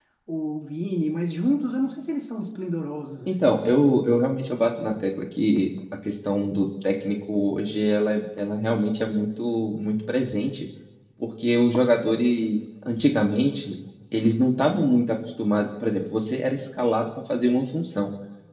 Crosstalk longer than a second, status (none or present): none